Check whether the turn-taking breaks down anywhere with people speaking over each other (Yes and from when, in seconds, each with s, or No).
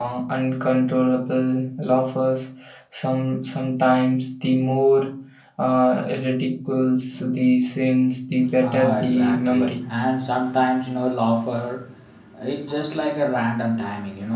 Yes, from 8.4 s